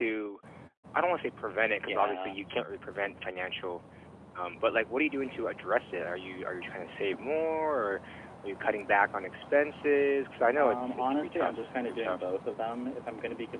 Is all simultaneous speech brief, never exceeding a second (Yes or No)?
No